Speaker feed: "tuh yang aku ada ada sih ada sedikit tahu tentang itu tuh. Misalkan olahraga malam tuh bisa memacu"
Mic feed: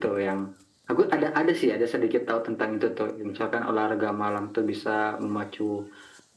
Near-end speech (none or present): none